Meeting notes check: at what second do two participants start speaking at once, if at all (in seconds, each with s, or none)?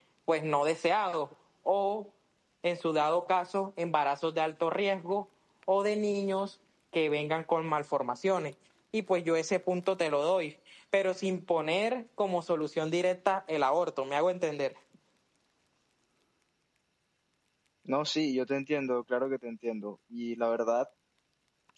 none